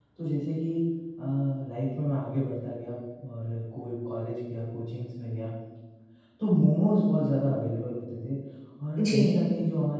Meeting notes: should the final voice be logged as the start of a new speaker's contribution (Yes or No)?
No